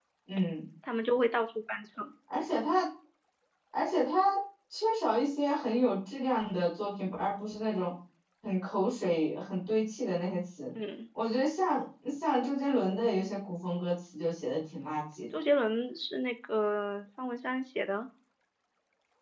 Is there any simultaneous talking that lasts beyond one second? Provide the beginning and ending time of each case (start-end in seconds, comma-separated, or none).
none